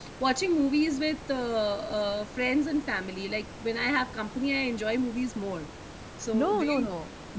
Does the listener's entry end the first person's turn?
Yes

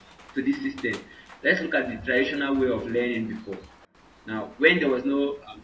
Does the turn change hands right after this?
No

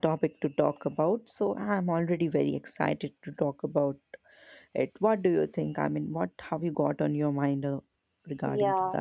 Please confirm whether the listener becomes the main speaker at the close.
Yes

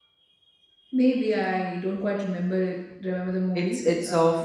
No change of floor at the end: No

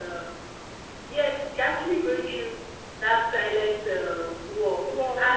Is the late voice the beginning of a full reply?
No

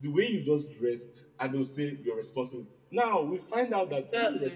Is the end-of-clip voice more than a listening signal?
No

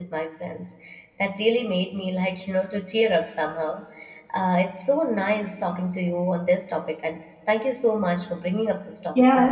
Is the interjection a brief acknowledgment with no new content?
No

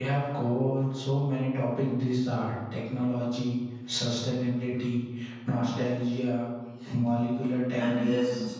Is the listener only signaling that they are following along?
No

